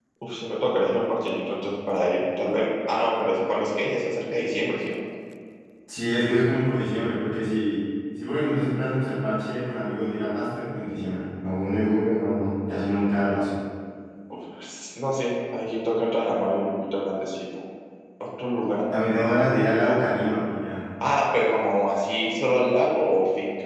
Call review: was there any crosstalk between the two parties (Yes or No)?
No